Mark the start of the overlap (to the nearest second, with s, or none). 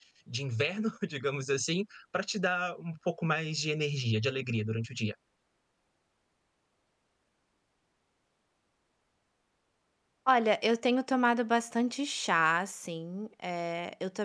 none